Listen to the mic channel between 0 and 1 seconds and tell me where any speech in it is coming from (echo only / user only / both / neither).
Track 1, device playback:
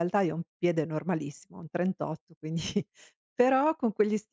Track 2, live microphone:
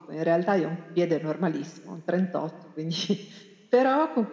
echo only